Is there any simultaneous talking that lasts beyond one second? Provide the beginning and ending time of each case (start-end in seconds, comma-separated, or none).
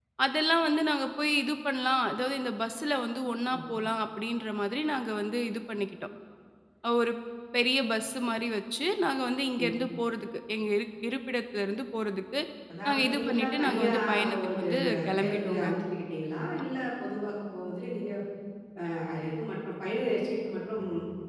12.9-15.7